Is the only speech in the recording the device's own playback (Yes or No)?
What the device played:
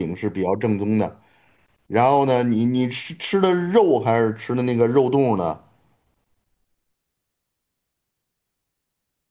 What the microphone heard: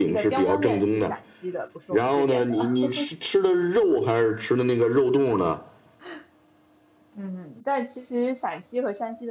No